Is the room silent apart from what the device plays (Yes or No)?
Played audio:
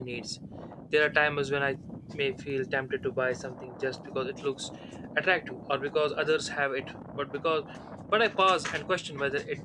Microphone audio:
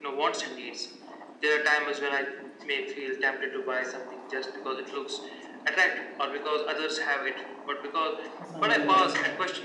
No